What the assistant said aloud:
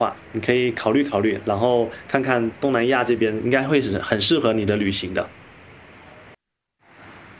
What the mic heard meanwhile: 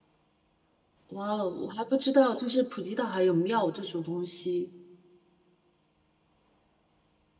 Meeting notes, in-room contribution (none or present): present